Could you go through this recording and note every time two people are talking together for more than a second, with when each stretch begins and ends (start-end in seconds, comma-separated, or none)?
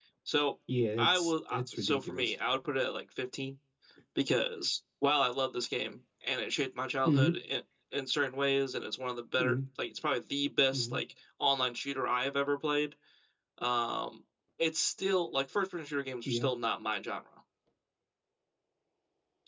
1.0-2.4